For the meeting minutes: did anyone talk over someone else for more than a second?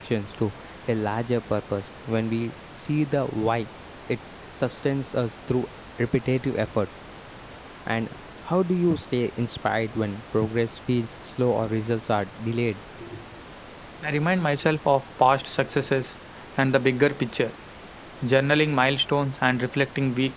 No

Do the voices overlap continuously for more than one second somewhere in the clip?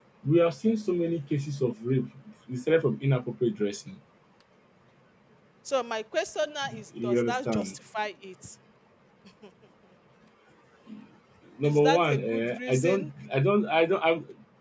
Yes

